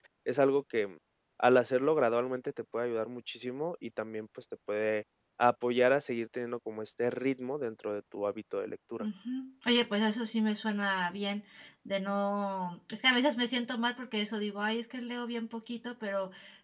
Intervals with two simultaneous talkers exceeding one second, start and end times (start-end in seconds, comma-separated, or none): none